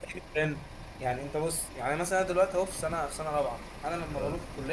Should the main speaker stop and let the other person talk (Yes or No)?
No